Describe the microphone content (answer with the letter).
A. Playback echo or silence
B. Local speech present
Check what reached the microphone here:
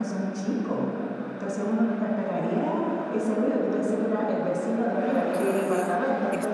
B